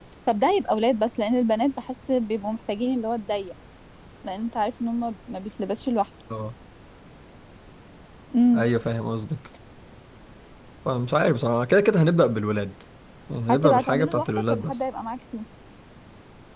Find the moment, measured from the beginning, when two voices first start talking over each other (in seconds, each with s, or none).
13.5 s